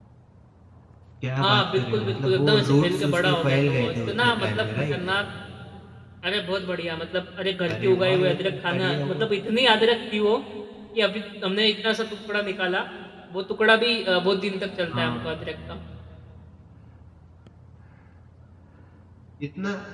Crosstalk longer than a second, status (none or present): present